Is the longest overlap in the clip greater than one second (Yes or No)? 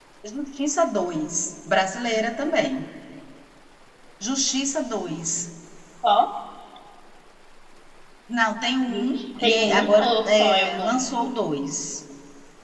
Yes